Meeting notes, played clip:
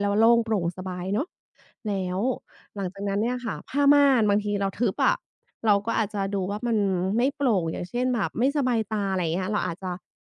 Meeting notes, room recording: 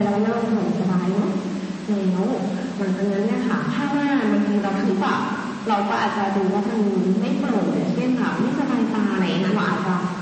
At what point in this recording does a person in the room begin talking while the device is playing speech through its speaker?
none

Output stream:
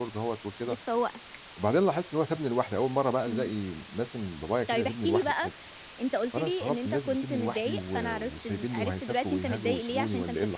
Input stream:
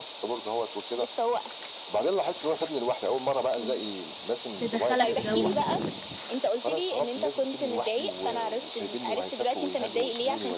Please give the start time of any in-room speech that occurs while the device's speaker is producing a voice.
4.6 s

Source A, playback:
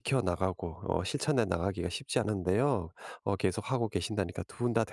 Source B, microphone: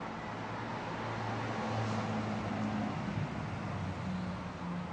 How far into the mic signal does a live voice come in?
none

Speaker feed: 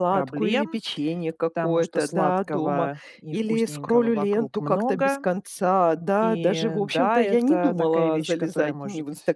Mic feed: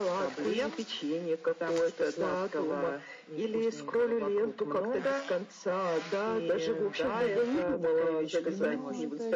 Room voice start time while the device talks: 7.1 s

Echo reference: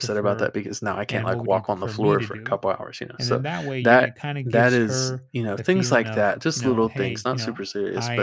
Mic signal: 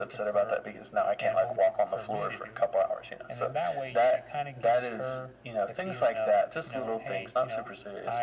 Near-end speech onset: none

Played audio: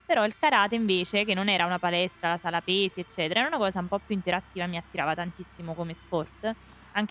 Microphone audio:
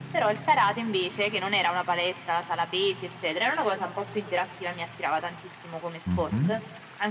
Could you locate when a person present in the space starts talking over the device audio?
6.1 s

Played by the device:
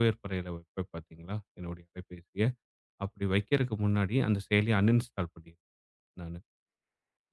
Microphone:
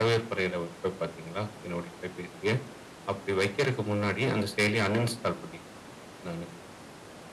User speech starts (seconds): none

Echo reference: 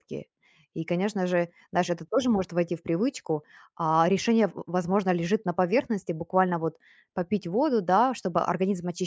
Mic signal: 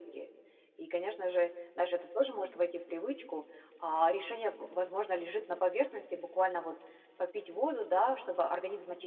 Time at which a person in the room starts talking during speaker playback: none

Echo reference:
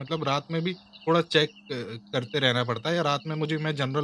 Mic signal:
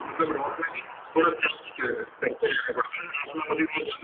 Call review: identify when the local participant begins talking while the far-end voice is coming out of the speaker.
none

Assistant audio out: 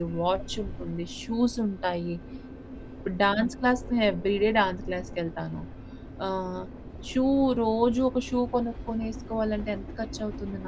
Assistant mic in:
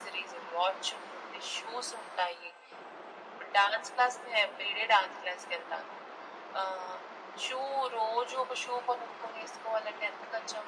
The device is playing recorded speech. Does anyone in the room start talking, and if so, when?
none

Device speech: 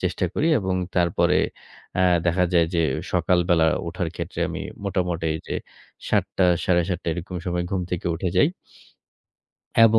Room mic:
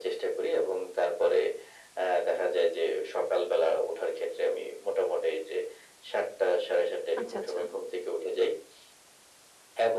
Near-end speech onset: 7.2 s

